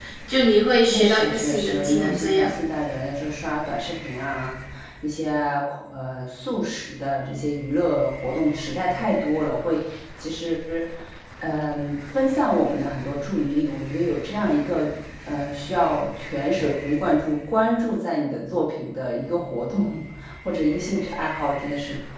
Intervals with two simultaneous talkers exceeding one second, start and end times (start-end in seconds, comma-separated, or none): 0.8-2.6